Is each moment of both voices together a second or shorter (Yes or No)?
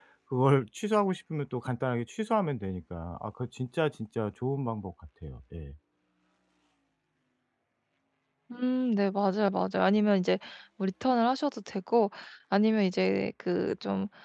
Yes